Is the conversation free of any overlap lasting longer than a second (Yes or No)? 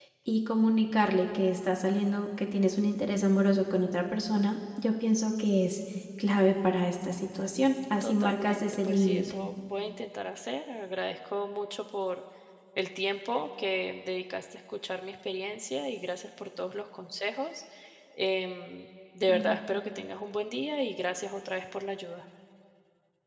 No